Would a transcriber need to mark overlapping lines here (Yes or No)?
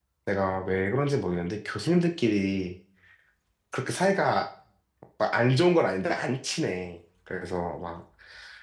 No